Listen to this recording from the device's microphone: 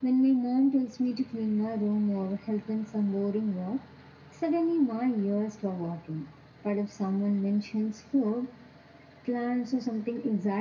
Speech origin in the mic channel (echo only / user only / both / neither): echo only